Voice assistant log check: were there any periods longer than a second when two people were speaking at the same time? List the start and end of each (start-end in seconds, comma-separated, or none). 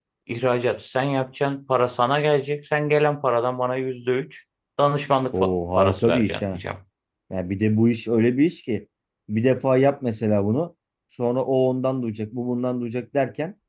5.3-6.6